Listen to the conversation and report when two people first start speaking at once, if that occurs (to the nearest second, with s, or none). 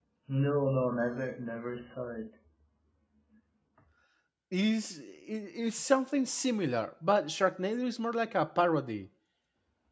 none